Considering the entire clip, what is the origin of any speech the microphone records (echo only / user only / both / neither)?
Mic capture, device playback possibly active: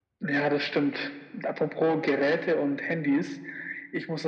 echo only